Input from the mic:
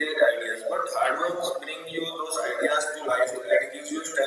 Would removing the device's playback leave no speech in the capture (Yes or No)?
Yes